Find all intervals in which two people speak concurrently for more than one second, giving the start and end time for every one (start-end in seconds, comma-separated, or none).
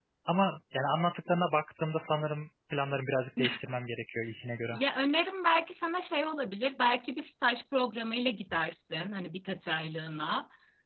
none